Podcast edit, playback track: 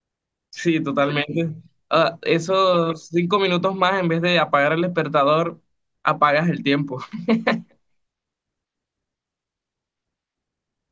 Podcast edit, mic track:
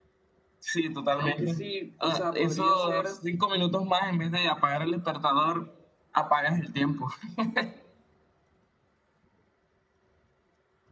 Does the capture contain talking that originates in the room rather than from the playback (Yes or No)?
Yes